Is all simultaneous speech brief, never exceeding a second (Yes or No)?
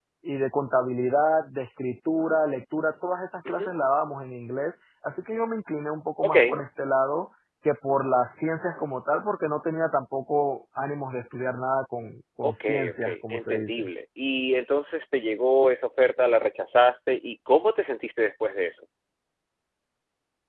No